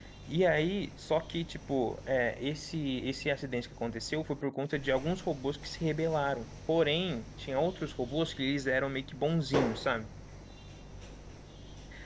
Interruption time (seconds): none

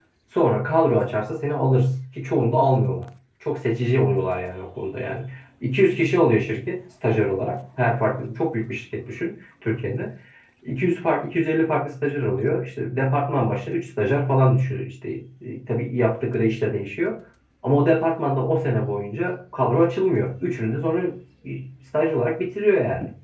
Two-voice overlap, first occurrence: none

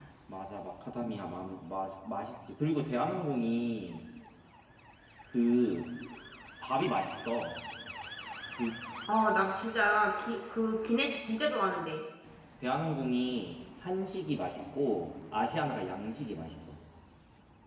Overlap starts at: none

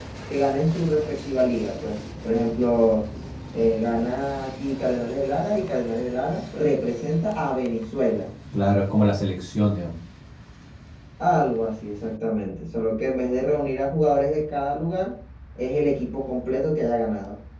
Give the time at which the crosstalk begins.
none

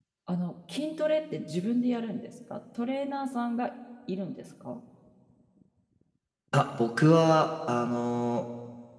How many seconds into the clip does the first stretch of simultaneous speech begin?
none

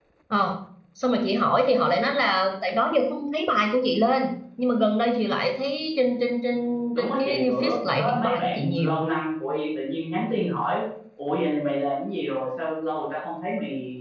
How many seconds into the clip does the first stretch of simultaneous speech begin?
7.0 s

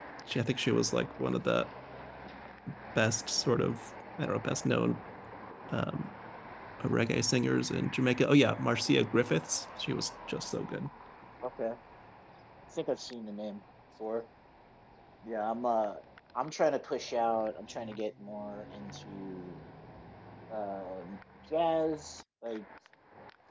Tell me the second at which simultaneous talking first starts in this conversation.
none

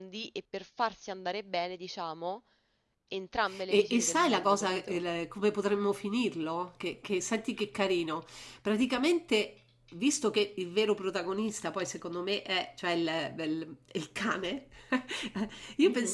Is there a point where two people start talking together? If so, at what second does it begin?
3.7 s

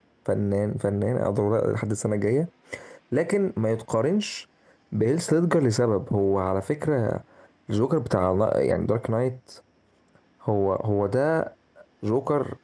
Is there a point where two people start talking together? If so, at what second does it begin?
none

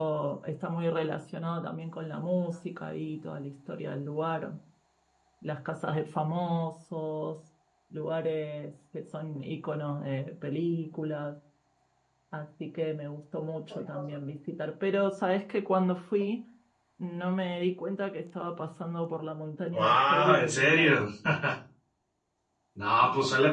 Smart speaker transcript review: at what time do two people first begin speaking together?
19.7 s

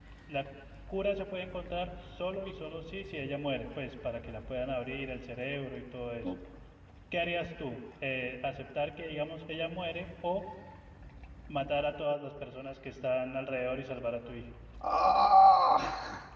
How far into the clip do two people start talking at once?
none

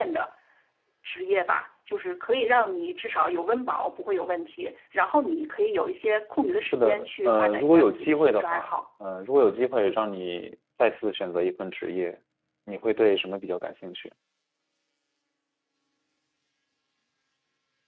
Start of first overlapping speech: 6.7 s

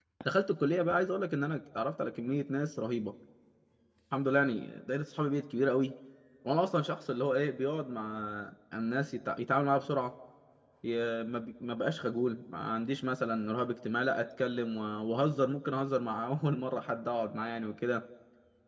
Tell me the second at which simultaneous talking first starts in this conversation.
none

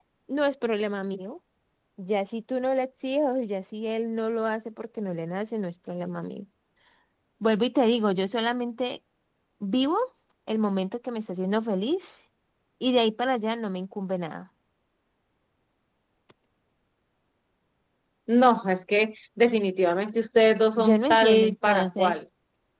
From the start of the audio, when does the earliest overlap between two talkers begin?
20.8 s

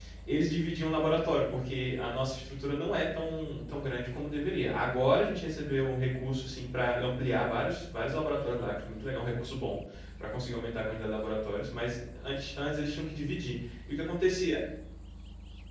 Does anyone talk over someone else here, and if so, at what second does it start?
none

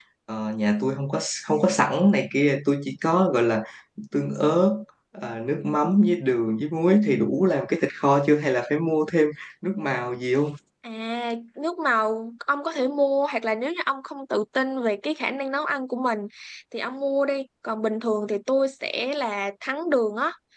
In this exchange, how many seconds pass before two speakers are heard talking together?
none

